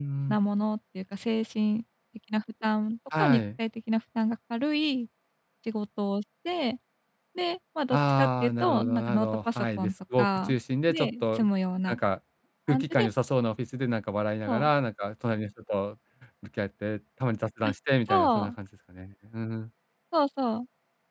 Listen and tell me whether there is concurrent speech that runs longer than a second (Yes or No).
Yes